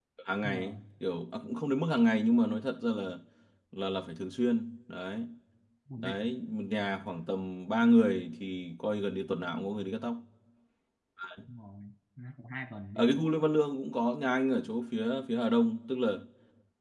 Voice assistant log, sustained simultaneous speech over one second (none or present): none